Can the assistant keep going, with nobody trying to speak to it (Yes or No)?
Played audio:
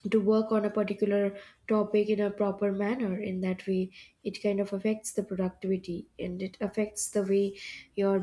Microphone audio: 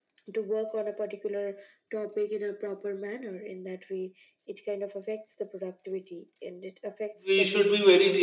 No